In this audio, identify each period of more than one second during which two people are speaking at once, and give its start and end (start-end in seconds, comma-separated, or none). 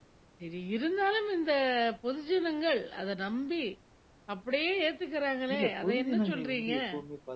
5.5-6.7